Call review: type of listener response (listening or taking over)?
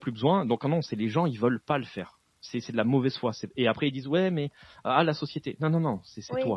taking over